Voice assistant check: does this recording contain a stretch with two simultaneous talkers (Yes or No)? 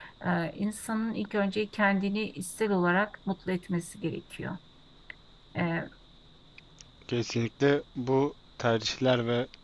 No